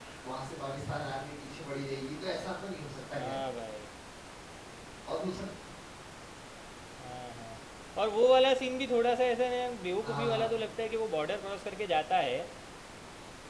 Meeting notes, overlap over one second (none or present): none